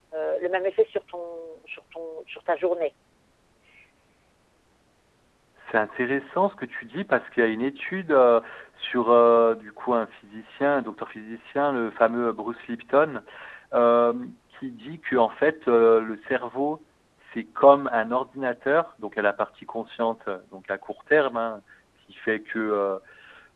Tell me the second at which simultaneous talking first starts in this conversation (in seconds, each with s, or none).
none